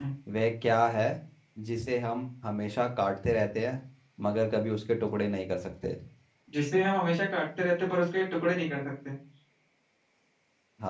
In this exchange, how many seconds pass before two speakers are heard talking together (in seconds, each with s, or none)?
none